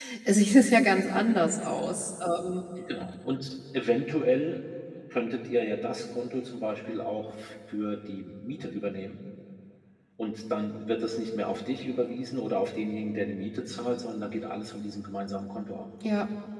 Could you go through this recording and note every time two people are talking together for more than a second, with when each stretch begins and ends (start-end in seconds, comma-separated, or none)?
none